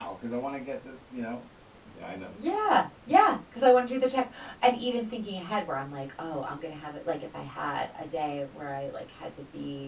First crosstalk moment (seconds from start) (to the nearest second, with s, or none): none